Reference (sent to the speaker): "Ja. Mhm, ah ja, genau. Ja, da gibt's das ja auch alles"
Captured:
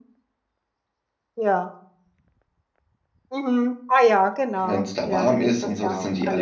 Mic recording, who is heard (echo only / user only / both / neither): both